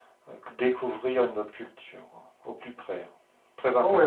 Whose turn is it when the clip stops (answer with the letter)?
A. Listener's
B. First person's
A